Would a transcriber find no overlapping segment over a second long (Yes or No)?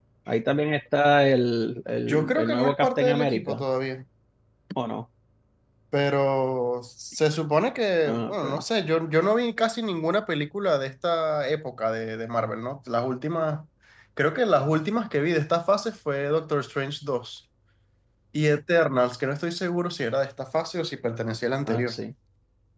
No